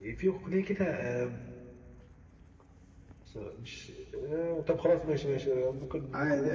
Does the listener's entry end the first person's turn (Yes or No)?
No